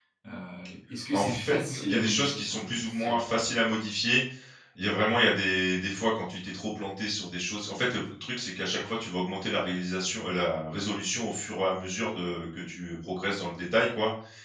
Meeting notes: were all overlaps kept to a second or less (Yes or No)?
No